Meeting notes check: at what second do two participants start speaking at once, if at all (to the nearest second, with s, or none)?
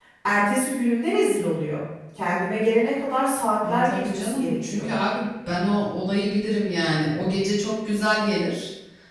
4 s